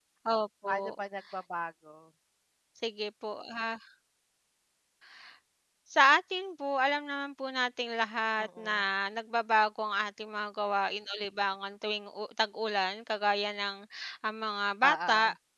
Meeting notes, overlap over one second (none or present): none